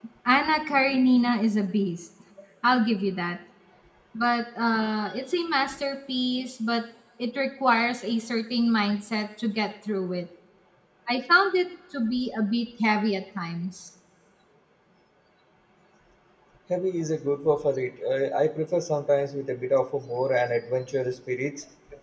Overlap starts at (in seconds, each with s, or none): none